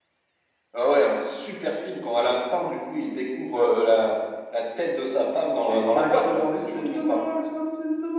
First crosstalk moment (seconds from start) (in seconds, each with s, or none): 5.7 s